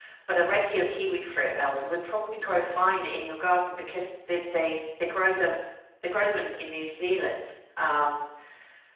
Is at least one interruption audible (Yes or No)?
No